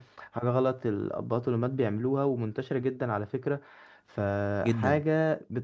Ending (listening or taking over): listening